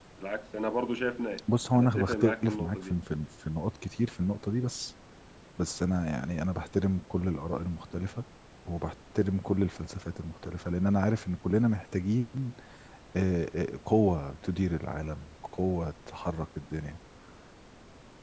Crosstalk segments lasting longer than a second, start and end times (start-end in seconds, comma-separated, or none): 1.7-2.9